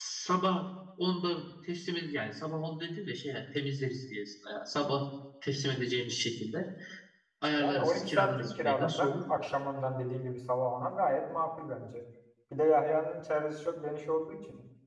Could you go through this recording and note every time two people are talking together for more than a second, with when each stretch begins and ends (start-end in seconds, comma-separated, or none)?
7.6-9.1